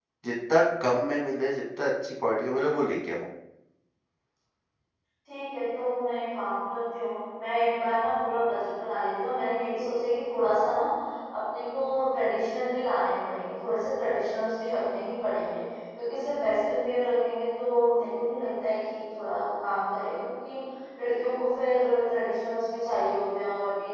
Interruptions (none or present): none